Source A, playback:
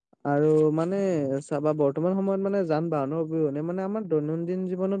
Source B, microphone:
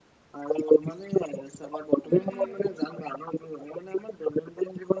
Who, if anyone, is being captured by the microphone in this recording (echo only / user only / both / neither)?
both